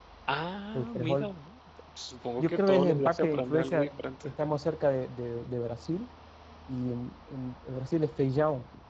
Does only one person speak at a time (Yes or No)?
No